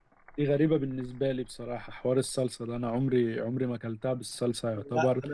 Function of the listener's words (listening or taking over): listening